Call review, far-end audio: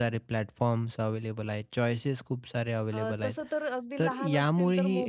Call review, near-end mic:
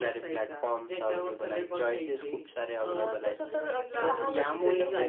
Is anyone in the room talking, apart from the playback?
Yes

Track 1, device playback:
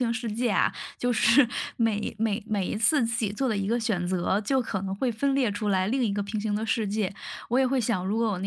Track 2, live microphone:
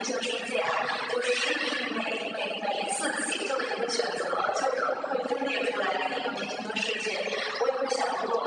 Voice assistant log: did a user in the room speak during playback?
No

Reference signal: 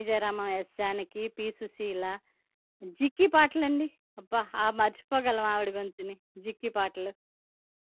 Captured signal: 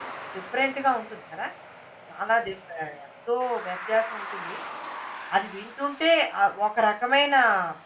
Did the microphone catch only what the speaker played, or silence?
No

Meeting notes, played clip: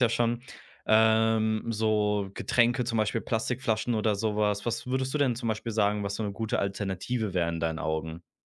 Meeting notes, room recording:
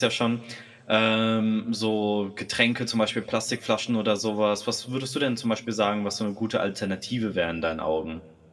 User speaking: No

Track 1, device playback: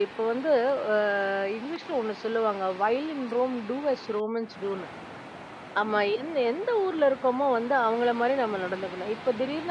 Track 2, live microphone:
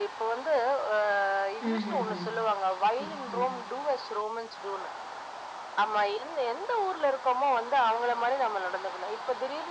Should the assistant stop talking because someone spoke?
Yes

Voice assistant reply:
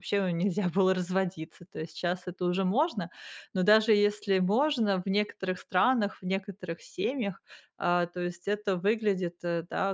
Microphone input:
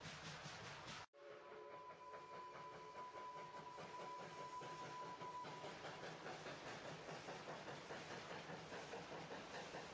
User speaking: No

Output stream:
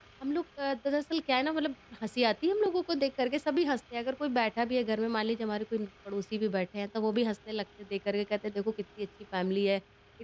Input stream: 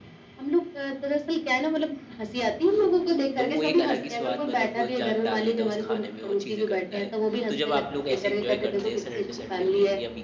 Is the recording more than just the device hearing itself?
Yes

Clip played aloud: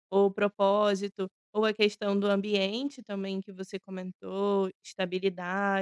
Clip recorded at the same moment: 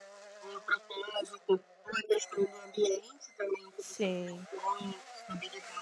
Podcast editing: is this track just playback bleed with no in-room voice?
No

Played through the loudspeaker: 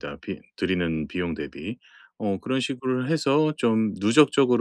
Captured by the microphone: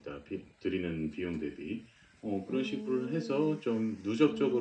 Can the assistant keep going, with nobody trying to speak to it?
No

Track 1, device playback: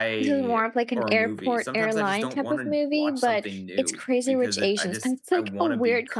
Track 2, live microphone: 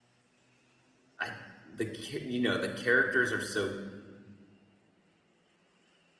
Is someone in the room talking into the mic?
Yes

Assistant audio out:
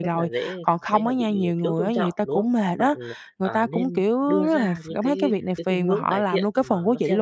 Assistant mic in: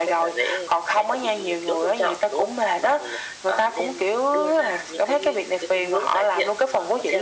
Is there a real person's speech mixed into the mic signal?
No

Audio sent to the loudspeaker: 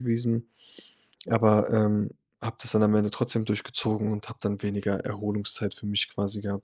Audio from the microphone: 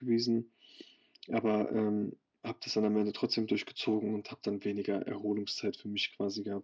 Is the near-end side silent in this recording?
Yes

